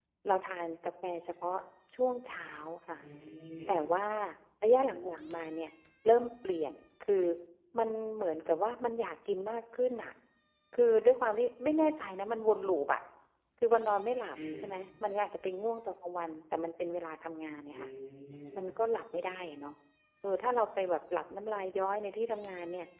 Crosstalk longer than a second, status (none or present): none